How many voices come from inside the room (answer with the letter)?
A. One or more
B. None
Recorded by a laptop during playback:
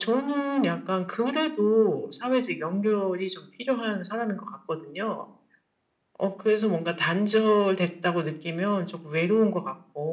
B